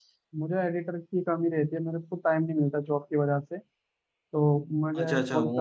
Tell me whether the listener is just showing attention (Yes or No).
No